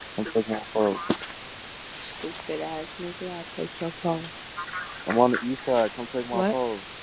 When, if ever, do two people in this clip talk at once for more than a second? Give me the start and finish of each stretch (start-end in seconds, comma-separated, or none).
none